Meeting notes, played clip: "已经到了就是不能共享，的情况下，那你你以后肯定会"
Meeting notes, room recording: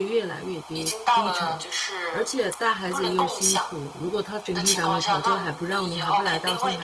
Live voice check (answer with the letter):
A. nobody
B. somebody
B